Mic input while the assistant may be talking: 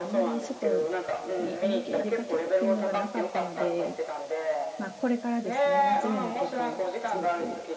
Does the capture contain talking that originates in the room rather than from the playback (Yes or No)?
Yes